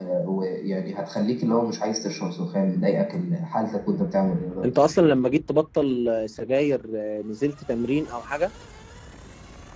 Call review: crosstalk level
none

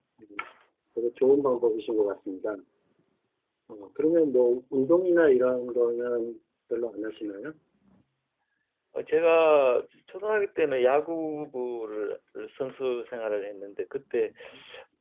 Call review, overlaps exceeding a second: none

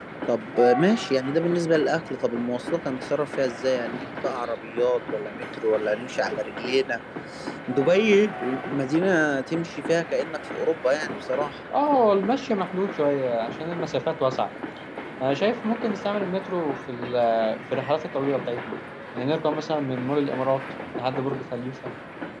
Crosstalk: none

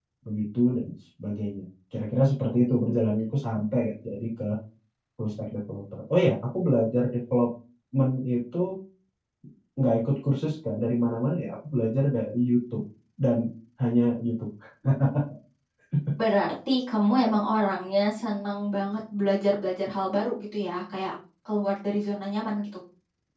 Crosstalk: none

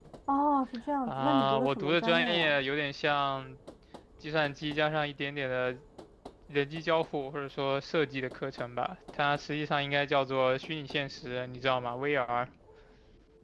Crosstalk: present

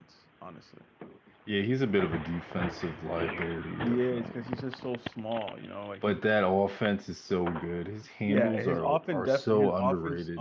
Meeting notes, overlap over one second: present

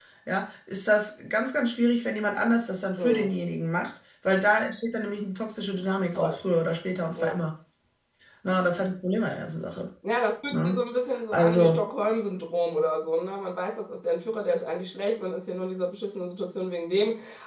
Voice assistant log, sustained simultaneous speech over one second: none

